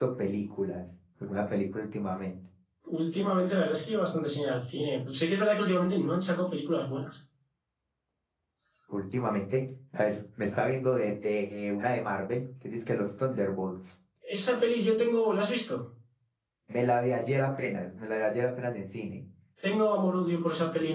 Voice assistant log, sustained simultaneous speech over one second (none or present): none